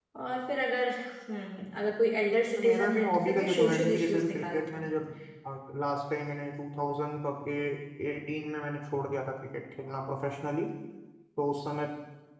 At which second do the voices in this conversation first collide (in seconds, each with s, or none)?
2.6 s